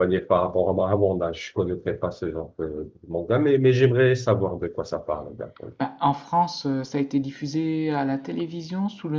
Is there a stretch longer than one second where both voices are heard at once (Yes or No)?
No